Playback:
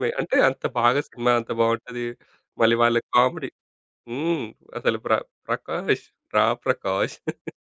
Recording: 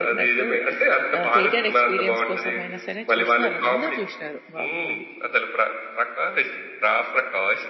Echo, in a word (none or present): present